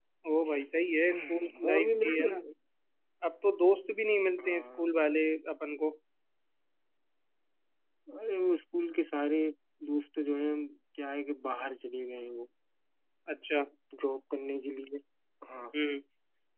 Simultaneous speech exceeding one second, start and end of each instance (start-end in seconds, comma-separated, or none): 1.1-2.3